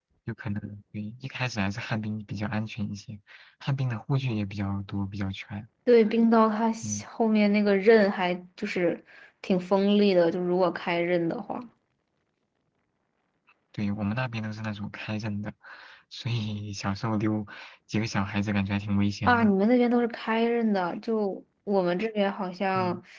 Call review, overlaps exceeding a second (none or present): none